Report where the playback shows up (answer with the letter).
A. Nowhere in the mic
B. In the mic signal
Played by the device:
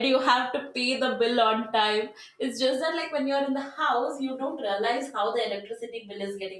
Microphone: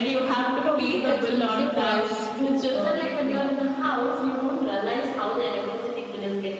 B